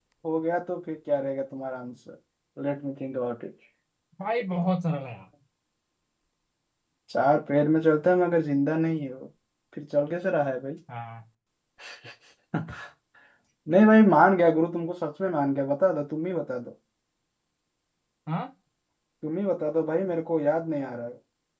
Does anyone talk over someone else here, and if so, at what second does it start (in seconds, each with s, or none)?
none